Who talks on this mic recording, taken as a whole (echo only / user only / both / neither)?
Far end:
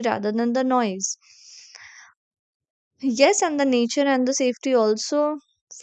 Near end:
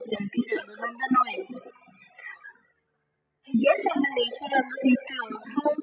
echo only